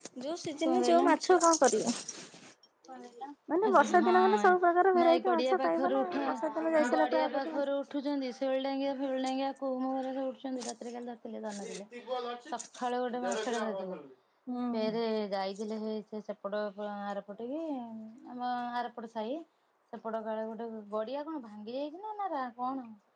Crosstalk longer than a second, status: present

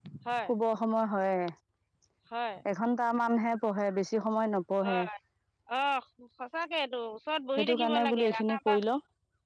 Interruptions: present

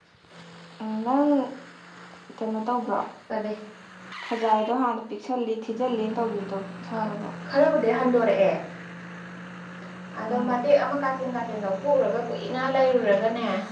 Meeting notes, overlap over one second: none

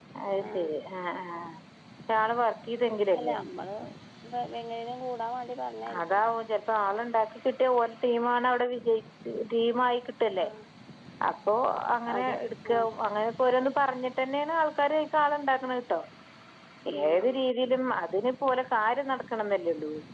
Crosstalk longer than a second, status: none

